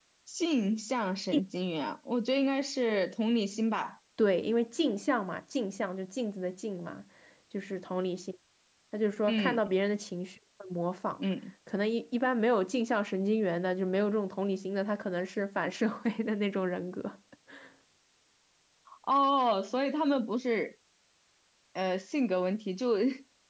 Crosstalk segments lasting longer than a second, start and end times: none

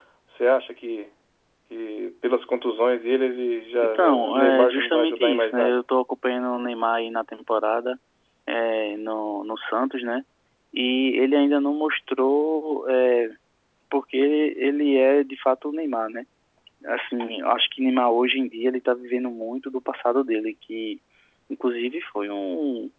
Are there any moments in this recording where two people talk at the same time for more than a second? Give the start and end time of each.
3.8-5.8

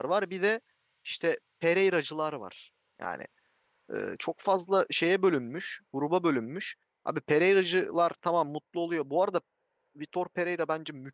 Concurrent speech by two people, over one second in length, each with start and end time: none

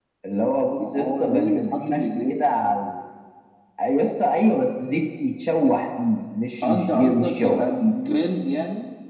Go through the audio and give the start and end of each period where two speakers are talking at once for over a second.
0.9-2.4, 6.6-7.9

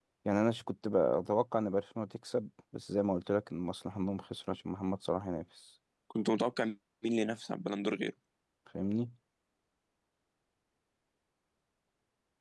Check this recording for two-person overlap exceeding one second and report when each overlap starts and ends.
none

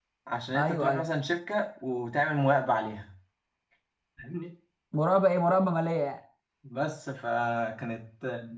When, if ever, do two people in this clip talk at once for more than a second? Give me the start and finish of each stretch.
none

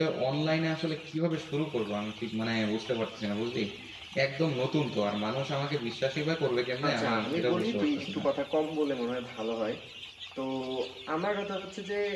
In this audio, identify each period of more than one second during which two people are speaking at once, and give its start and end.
6.8-8.2

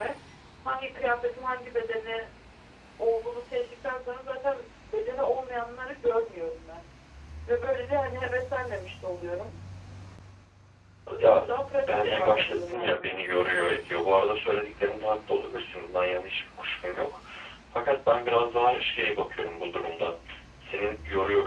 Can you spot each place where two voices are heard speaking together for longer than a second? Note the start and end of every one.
11.9-13.1

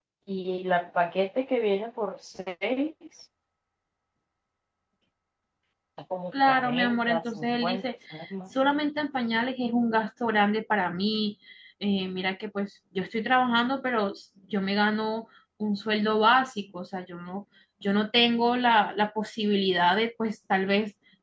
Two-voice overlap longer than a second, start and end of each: 6.3-7.8

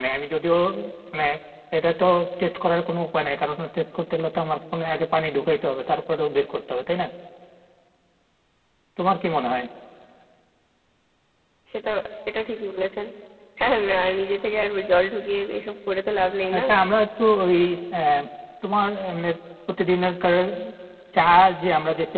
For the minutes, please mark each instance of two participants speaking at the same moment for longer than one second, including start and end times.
none

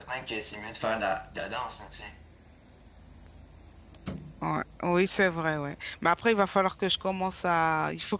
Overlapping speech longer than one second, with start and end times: none

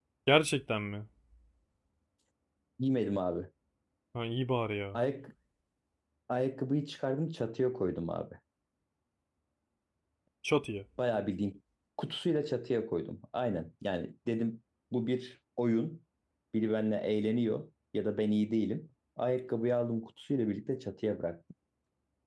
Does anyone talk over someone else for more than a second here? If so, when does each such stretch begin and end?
none

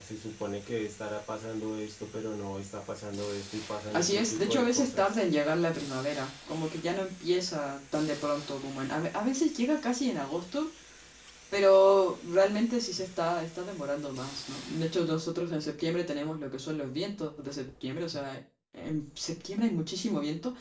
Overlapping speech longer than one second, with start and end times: 3.9-5.2

